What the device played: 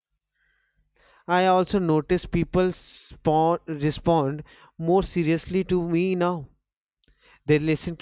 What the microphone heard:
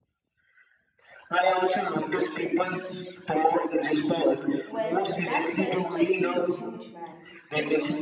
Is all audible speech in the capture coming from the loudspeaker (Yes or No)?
No